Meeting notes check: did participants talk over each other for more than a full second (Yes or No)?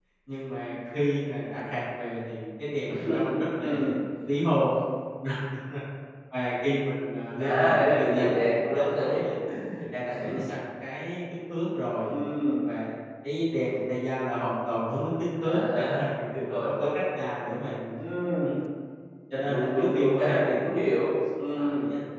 Yes